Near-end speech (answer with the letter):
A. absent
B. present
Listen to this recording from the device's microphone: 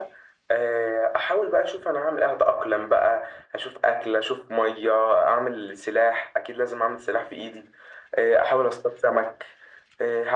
A